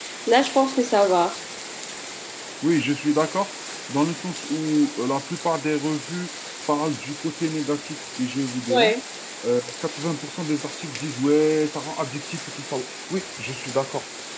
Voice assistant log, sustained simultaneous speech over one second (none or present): none